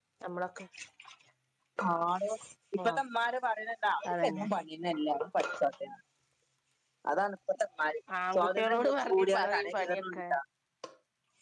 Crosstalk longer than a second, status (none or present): present